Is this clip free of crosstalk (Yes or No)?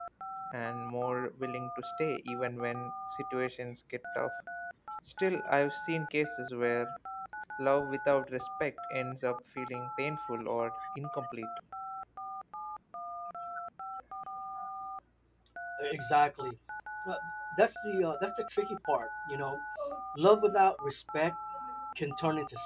Yes